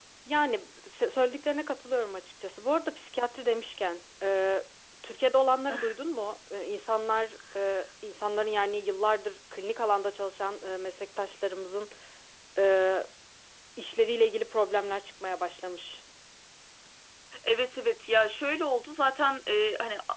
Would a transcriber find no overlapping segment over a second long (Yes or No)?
Yes